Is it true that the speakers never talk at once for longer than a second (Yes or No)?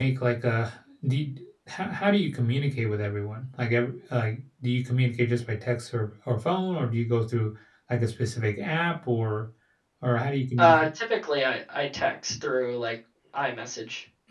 Yes